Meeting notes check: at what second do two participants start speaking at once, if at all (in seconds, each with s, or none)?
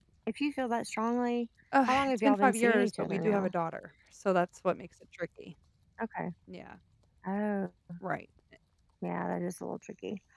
1.7 s